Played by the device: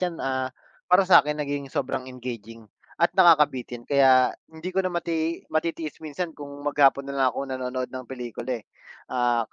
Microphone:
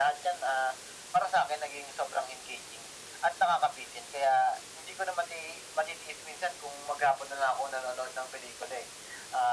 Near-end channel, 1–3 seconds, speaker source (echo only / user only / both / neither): echo only